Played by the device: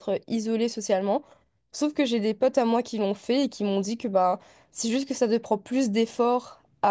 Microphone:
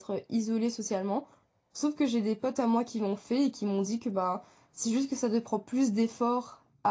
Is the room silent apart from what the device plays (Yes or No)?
Yes